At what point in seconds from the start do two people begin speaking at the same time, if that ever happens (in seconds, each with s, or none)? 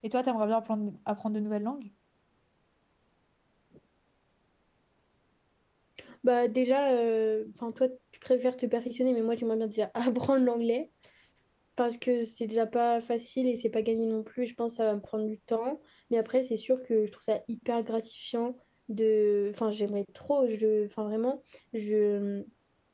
none